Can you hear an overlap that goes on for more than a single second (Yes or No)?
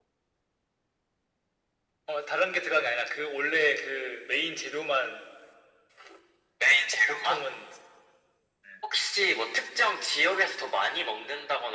No